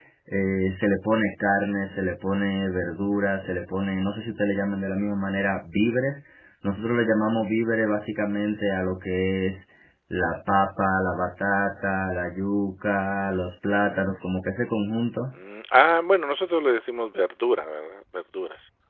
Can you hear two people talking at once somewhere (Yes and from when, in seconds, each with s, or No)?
No